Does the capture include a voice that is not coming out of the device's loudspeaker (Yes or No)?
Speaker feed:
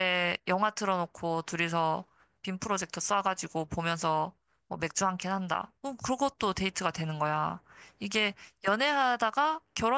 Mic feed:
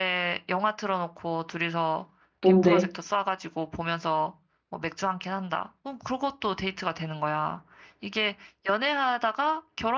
Yes